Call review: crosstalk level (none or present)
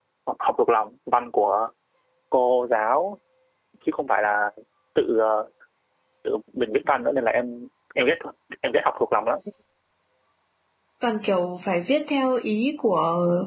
none